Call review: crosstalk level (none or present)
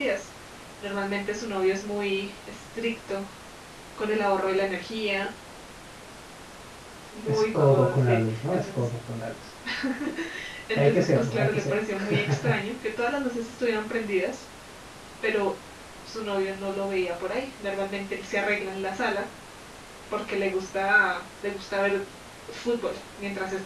present